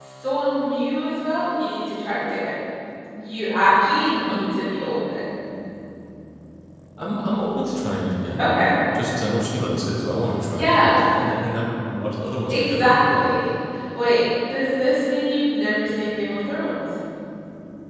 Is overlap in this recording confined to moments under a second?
Yes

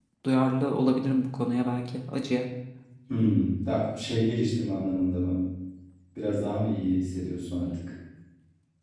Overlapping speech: No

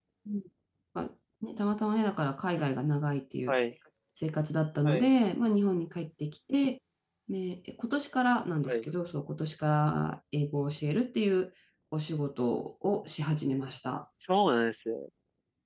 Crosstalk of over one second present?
No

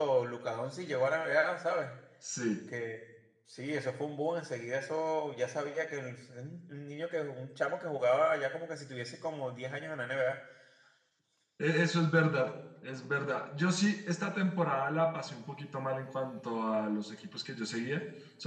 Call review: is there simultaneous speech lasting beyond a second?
No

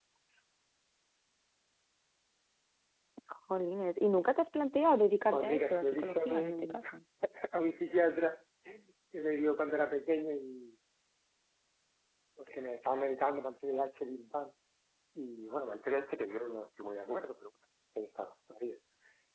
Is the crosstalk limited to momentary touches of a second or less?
No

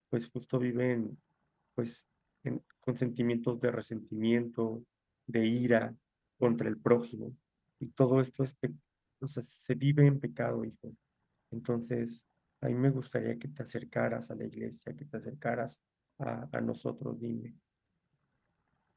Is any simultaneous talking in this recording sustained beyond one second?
No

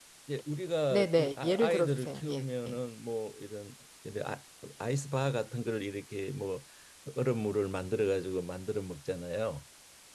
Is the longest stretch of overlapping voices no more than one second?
No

